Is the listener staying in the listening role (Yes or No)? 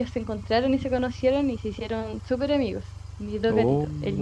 Yes